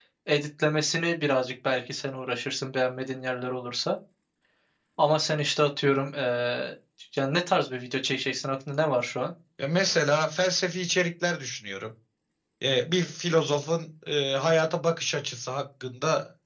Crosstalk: none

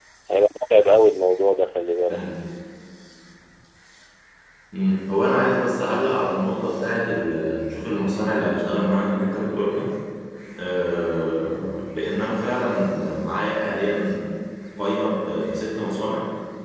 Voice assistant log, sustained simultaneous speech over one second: none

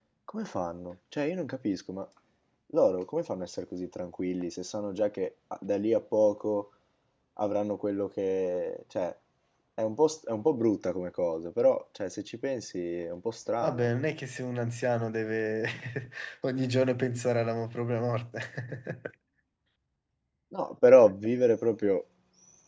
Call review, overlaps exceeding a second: none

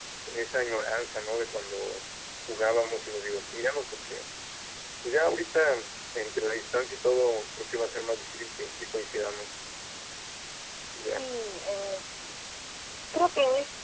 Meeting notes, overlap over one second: none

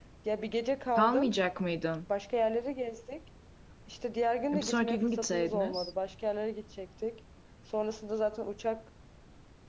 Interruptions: present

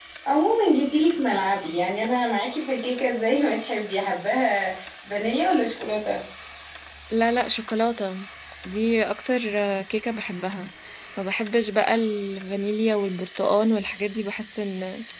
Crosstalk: none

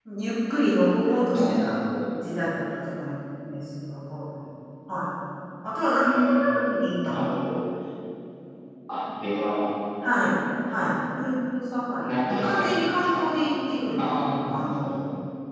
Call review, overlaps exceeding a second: present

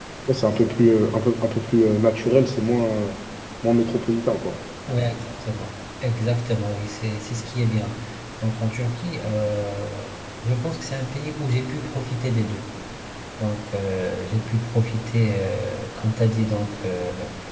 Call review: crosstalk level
none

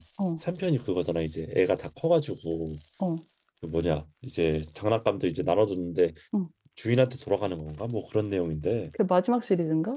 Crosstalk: none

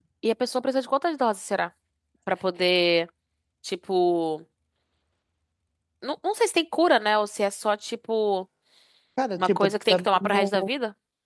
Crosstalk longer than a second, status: present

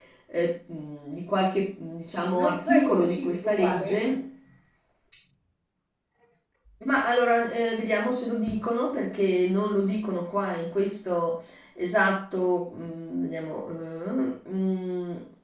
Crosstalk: present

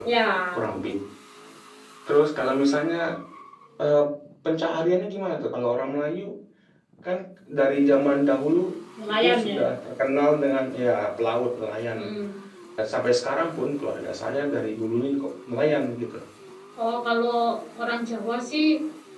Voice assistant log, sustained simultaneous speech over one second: none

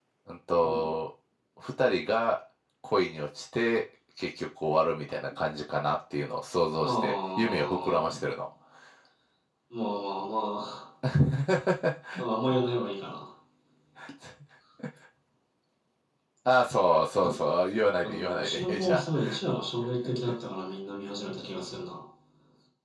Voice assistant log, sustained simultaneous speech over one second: present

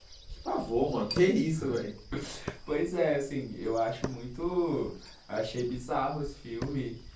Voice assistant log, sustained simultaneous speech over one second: none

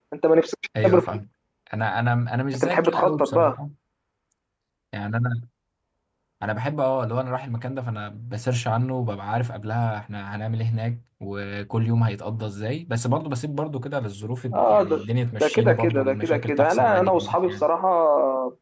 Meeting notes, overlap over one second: present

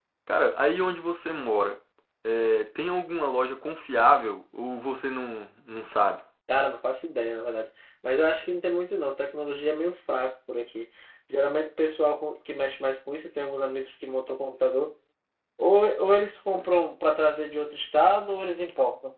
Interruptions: none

